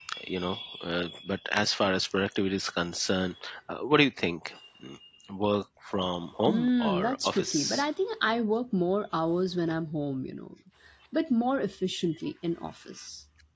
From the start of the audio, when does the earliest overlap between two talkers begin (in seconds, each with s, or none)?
6.5 s